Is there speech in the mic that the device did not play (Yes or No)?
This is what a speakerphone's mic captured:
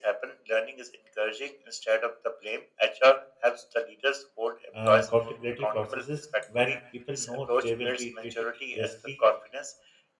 Yes